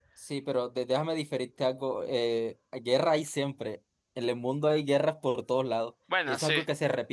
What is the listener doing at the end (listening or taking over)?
listening